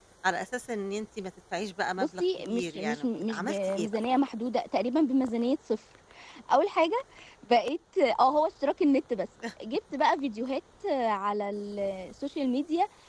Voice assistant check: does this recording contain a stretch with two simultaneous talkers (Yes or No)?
Yes